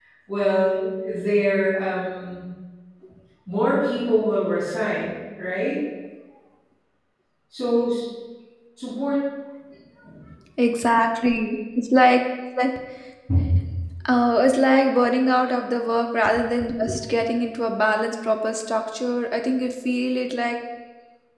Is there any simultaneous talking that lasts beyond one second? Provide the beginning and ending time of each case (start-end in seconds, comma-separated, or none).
none